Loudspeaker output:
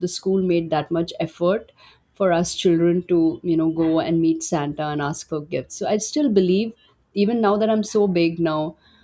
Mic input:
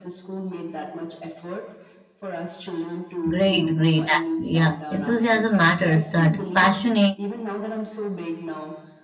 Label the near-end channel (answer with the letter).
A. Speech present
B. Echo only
A